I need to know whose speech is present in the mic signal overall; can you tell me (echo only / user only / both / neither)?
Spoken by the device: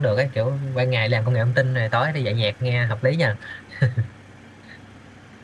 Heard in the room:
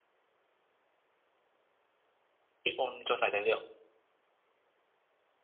user only